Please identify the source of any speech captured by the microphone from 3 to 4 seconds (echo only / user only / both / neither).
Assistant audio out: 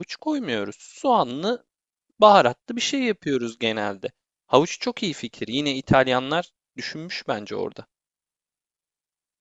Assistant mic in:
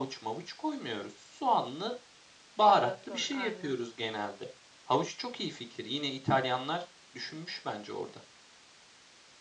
both